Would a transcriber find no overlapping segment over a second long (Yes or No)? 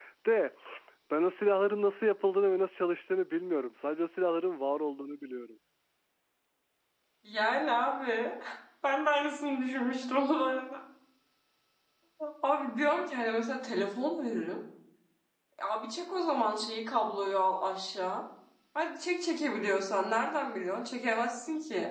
Yes